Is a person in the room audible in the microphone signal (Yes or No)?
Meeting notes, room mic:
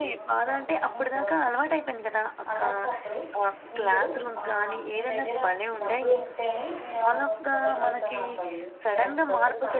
Yes